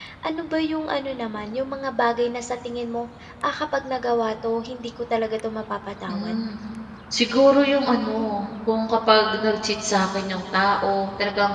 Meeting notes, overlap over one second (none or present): none